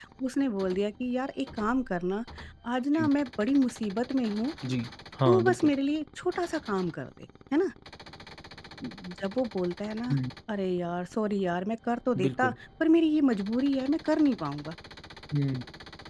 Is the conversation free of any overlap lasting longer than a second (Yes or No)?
Yes